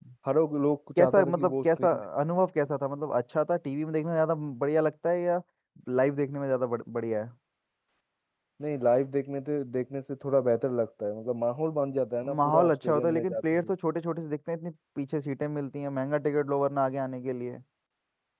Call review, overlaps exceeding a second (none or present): present